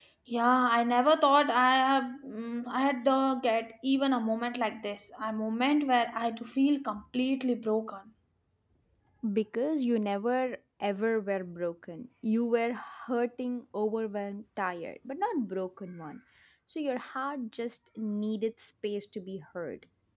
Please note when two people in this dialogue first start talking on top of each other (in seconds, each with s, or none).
none